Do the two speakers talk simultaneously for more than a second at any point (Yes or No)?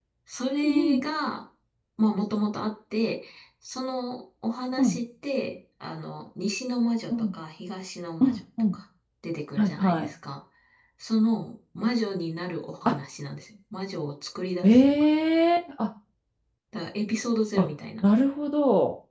No